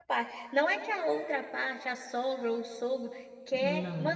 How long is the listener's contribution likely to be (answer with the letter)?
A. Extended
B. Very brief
B